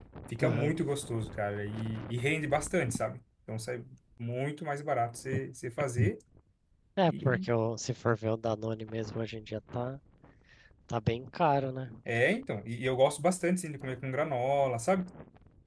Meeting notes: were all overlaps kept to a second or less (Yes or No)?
Yes